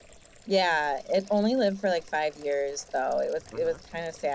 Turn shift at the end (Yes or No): No